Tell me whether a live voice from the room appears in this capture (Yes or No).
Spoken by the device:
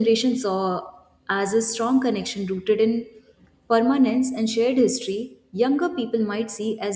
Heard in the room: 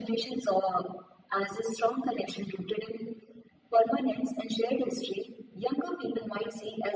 No